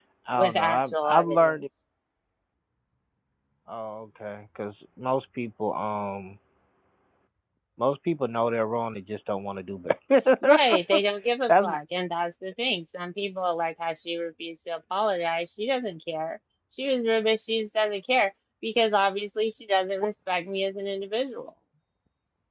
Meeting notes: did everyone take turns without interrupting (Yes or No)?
No